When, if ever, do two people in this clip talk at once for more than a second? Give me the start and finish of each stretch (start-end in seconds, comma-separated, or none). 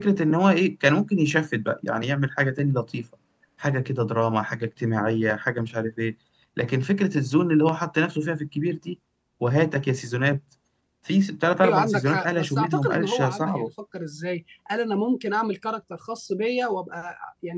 11.6-13.7